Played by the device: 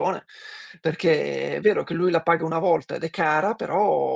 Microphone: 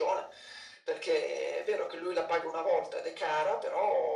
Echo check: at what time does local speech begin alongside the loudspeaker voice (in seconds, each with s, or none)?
none